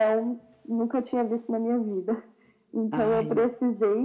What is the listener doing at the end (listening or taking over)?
listening